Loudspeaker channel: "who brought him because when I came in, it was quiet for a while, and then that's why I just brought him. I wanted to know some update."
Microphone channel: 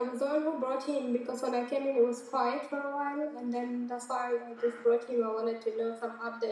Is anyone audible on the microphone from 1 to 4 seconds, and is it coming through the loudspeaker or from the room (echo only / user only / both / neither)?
echo only